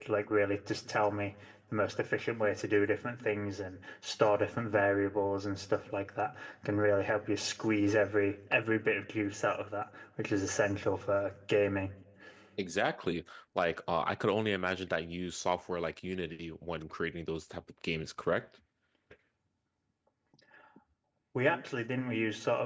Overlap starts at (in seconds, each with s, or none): none